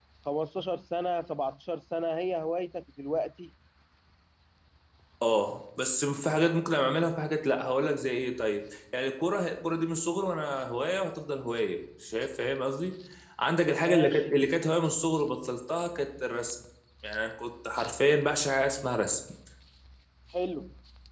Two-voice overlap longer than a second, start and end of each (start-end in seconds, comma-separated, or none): none